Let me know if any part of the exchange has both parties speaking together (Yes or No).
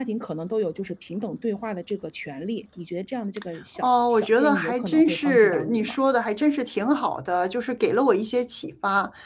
Yes